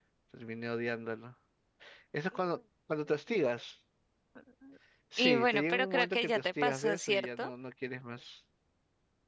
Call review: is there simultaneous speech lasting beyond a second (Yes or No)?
Yes